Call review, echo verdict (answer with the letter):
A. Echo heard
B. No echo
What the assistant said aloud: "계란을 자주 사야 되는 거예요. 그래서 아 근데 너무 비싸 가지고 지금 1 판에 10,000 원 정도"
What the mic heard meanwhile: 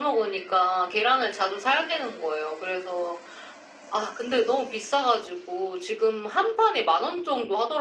A